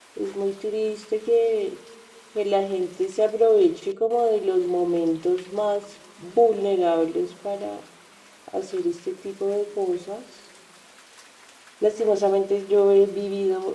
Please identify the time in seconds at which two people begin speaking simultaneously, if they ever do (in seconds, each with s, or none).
none